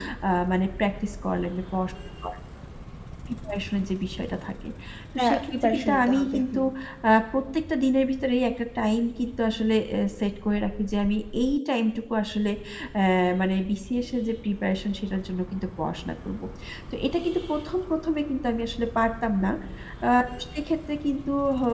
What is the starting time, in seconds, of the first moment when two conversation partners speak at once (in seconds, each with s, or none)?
5.2 s